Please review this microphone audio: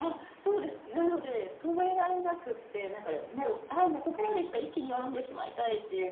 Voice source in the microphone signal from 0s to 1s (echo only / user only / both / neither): echo only